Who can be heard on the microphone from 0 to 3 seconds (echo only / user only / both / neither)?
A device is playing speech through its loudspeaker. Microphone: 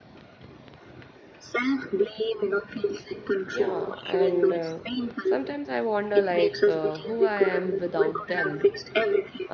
echo only